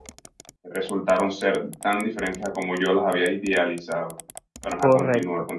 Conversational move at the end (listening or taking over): taking over